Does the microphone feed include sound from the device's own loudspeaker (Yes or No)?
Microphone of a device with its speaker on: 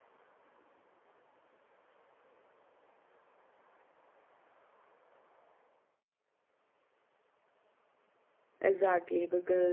No